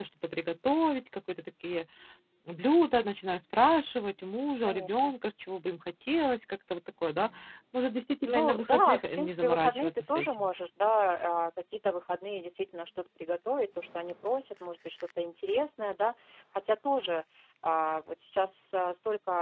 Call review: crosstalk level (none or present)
present